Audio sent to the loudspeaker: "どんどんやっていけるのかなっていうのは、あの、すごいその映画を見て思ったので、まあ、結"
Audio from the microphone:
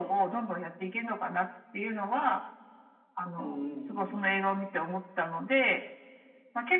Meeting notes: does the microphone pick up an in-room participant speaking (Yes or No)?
Yes